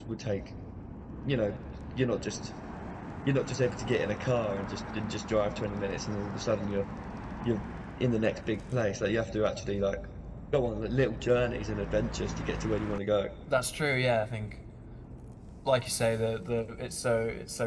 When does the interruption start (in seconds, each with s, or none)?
none